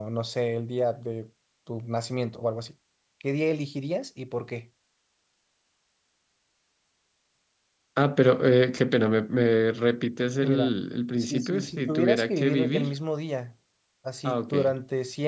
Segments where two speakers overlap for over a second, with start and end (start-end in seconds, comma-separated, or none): 11.2-12.9